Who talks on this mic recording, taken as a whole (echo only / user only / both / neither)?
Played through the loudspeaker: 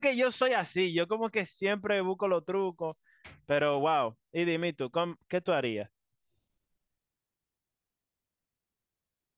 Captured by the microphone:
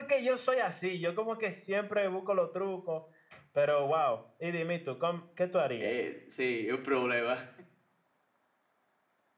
both